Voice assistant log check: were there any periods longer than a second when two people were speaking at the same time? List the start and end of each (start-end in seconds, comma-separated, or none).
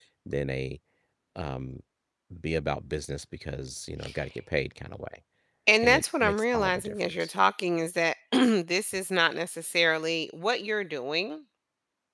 5.8-7.3